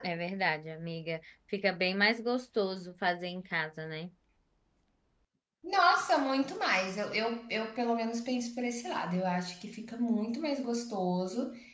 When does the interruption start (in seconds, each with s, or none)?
none